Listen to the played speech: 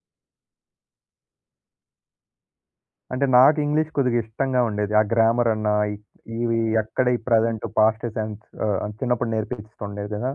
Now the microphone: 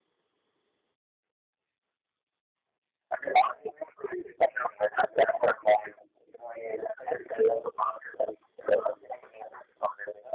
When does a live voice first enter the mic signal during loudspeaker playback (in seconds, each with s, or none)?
none